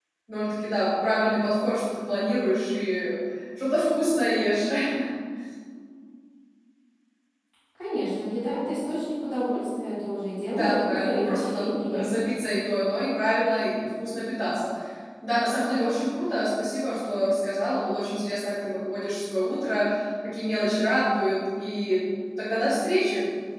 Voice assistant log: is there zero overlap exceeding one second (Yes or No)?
No